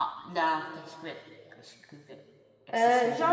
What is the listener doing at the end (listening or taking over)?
taking over